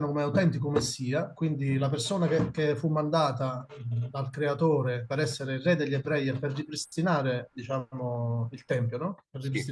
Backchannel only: Yes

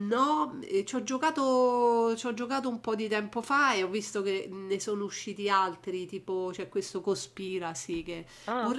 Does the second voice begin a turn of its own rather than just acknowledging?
No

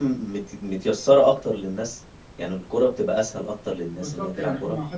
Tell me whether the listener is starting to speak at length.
Yes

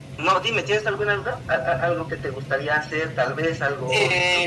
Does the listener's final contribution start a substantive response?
Yes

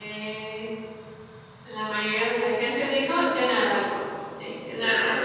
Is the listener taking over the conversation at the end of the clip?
Yes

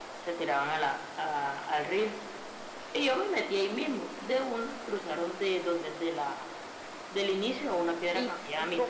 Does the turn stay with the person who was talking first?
No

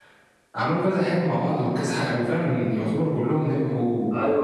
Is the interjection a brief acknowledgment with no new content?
No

